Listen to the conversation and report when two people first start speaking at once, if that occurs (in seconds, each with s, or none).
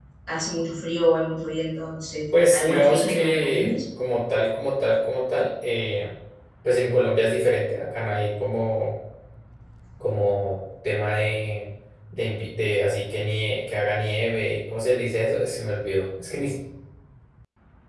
2.3 s